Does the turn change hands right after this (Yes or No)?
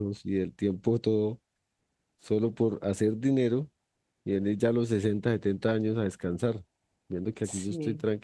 No